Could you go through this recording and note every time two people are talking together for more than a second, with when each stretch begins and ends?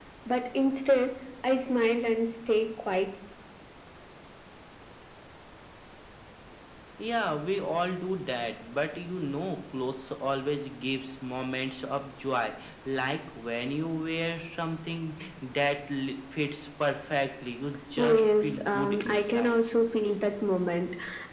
18.0-19.6

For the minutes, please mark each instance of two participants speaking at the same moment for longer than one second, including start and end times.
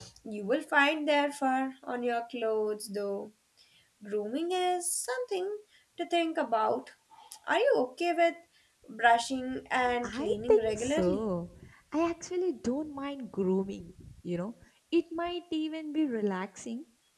10.0-11.2

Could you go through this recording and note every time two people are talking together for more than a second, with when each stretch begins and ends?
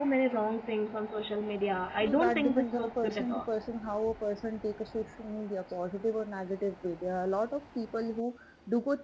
2.0-3.5

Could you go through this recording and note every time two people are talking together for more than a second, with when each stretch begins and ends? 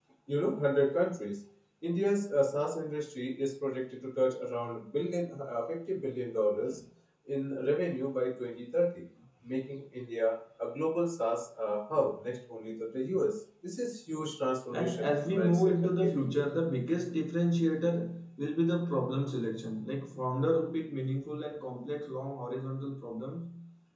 14.7-16.6

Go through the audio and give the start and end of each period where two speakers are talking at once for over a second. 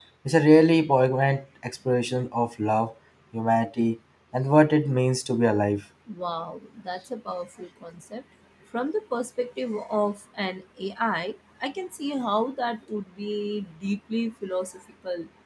none

